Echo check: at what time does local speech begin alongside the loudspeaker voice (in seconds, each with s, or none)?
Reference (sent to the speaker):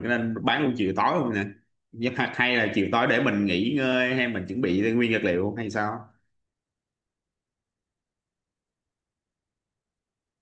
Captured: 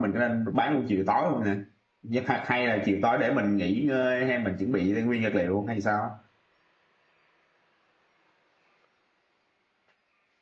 none